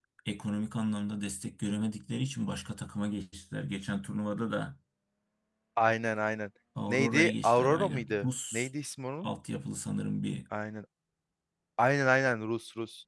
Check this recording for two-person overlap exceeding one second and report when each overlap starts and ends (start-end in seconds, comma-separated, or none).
6.9-8.7